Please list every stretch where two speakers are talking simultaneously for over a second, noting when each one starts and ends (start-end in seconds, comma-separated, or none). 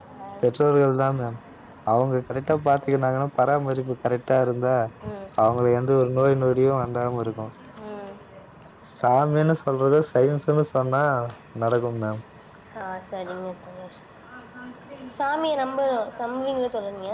none